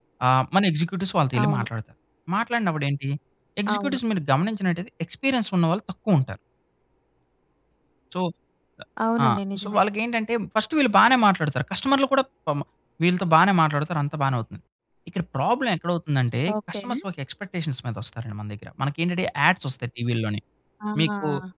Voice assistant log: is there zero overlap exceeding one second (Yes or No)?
Yes